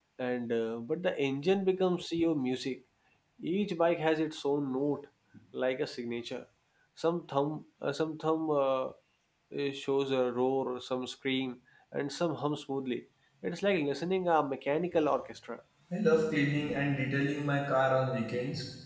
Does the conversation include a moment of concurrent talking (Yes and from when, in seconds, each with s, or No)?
No